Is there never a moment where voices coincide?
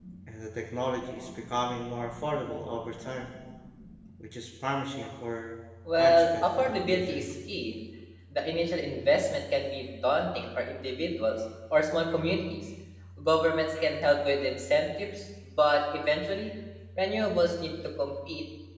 No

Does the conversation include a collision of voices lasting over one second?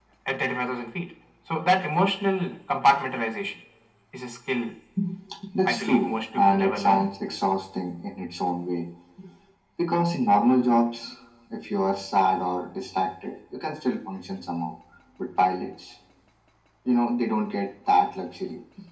Yes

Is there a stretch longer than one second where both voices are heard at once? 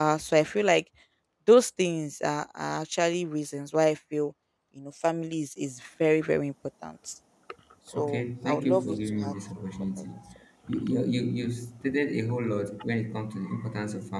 Yes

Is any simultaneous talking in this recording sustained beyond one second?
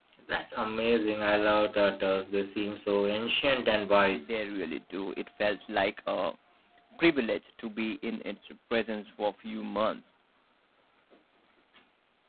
No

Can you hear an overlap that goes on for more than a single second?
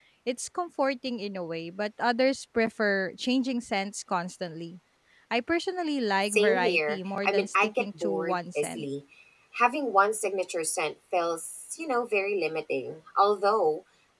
Yes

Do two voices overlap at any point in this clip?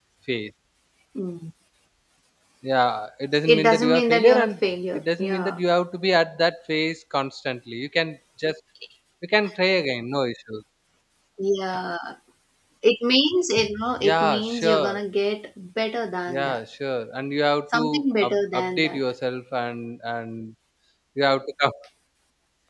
Yes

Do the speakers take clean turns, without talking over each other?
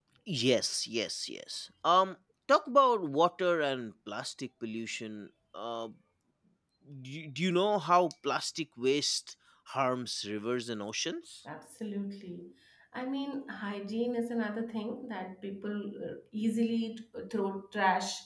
Yes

